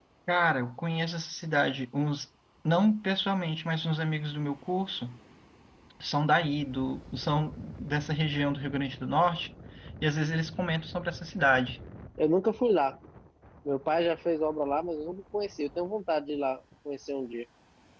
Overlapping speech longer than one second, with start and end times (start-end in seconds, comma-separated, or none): none